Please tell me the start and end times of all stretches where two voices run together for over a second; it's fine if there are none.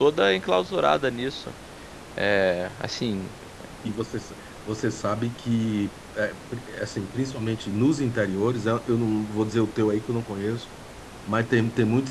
none

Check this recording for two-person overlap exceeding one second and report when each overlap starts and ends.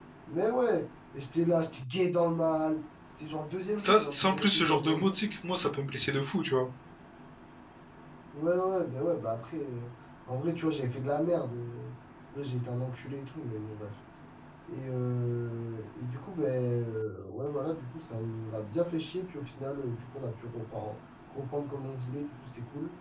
3.8-5.0

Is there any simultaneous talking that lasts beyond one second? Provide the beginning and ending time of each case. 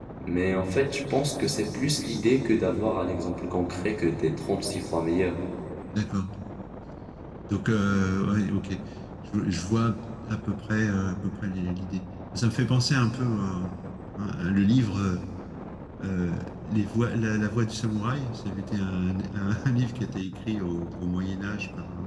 none

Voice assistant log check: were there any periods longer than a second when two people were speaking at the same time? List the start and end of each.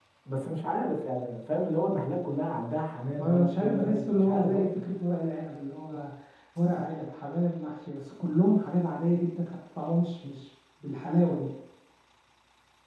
3.2-4.8

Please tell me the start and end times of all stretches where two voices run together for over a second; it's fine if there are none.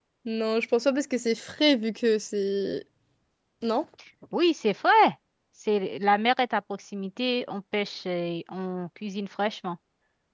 none

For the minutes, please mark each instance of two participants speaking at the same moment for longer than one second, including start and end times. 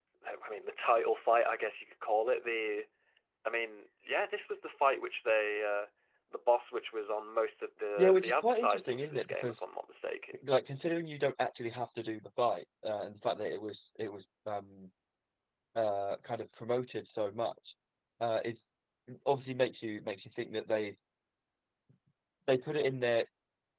8.0-9.6

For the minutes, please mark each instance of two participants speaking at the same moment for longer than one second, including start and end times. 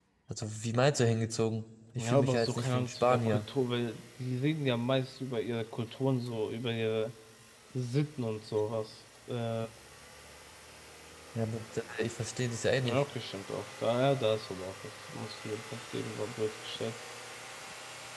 2.0-3.4

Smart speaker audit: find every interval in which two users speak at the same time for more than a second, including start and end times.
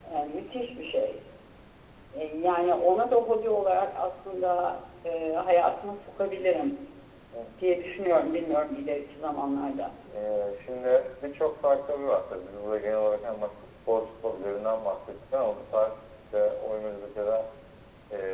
none

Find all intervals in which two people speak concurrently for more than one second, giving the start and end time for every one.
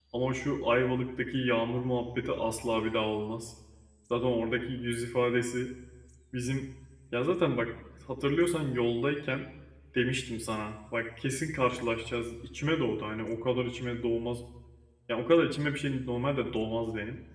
none

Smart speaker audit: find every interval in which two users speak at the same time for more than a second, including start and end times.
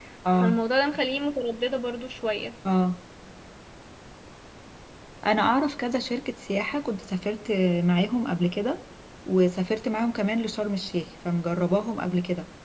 none

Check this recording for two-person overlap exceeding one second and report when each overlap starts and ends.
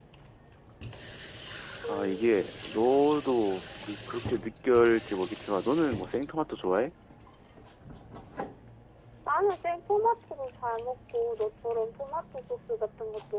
1.9-3.3

